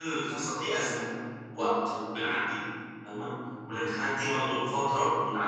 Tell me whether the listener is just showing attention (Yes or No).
Yes